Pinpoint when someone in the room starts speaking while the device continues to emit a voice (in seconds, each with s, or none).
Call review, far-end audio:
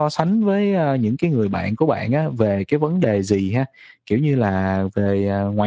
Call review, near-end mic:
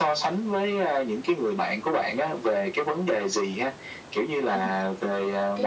4.5 s